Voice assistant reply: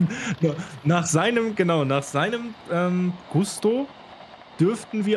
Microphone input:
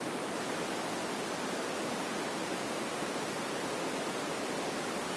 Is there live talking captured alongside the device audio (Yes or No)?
No